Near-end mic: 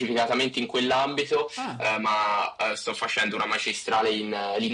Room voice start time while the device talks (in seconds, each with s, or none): 1.6 s